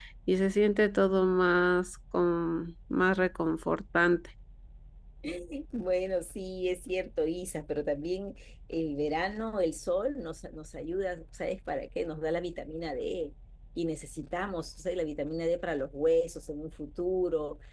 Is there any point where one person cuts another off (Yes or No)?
No